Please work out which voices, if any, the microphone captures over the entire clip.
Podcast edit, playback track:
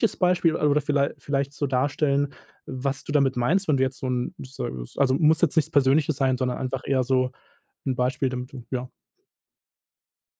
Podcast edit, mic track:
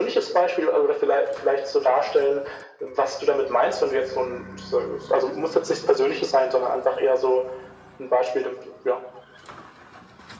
echo only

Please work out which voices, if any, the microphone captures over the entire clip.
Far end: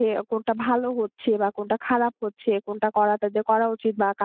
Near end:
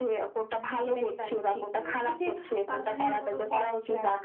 both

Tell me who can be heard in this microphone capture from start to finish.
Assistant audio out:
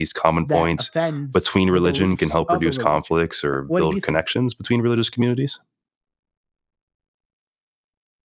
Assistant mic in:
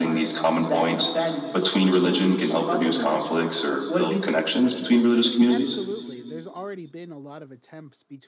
both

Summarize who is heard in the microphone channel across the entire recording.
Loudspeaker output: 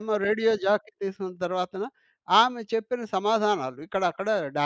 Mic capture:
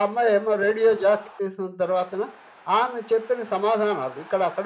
echo only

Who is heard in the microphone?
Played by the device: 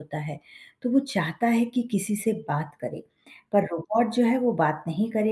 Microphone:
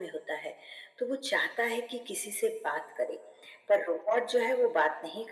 echo only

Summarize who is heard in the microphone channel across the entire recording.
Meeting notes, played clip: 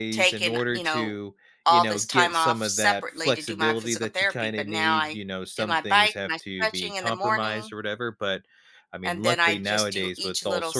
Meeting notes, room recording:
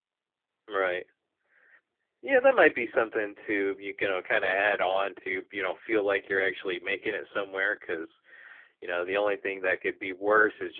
user only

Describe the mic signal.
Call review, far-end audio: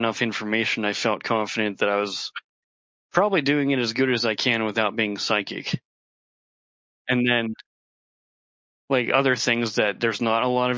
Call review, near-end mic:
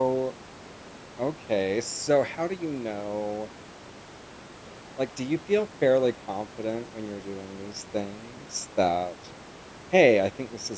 user only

